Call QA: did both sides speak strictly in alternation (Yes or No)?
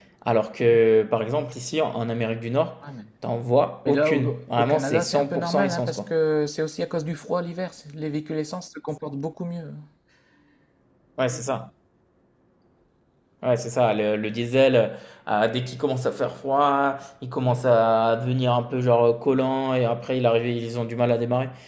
No